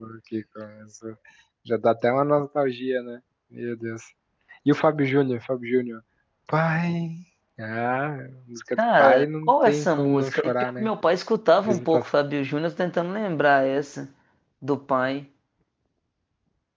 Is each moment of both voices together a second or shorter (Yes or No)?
No